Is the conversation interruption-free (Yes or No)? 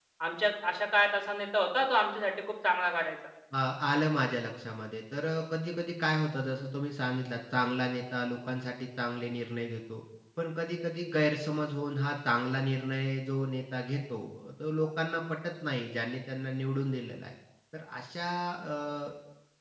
Yes